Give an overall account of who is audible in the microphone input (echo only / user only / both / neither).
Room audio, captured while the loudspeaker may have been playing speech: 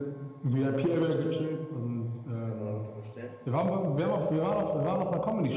both